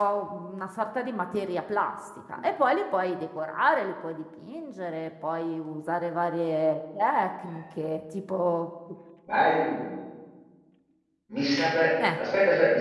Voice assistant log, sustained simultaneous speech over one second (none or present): none